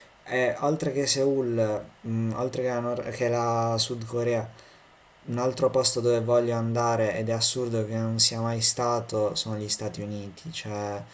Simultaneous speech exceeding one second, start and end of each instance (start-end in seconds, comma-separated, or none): none